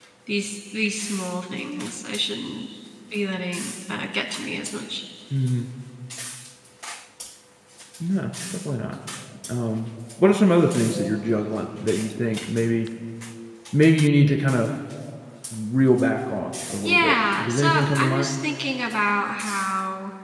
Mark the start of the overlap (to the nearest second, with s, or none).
17 s